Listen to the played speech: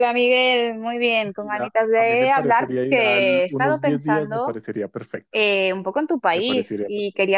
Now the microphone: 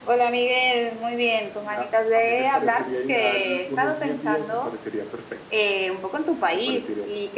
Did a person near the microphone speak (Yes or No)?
No